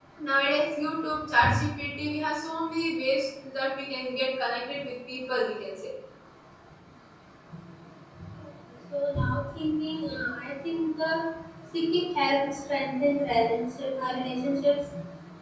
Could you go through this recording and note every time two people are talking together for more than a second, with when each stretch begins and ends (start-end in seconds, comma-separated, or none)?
none